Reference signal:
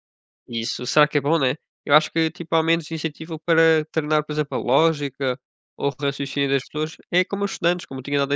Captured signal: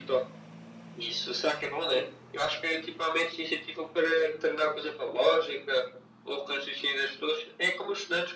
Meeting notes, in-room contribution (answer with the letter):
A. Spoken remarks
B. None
B